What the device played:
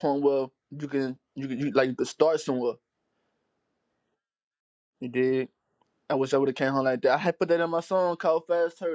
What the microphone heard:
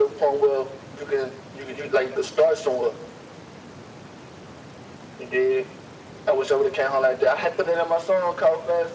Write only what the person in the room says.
none

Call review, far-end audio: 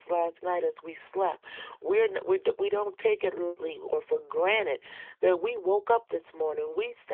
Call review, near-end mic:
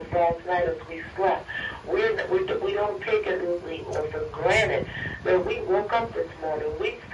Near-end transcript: none

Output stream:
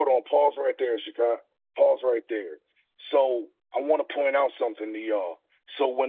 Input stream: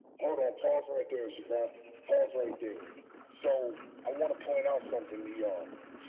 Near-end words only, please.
none

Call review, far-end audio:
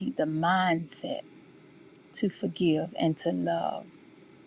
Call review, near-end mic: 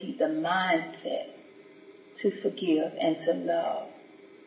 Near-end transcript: none

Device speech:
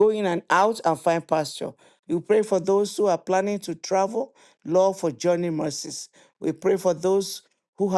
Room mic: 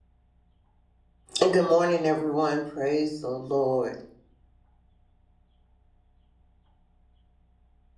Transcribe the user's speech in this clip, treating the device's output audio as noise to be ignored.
And good morning, everyone. Praise the Lord.

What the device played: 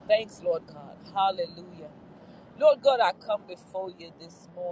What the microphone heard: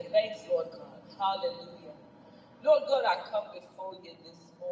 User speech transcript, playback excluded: none

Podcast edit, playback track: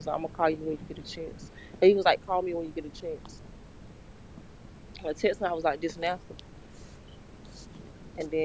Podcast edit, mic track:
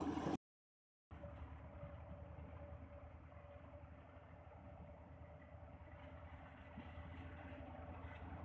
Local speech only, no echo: none

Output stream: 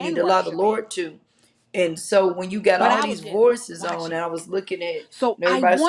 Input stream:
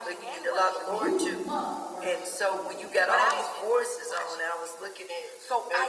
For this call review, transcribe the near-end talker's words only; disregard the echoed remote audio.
You must worship in the wait

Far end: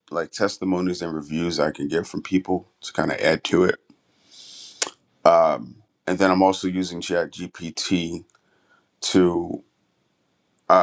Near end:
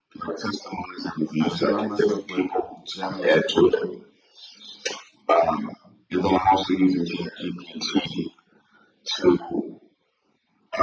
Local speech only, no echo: I surround myself with generous people.

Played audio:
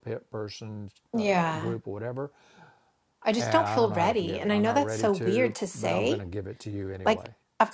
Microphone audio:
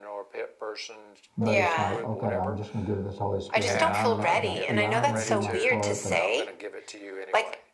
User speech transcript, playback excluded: But it's like, okay, I'm just going to give this Holy Spirit, knowing that, yeah, I'm going to have to do my part, but

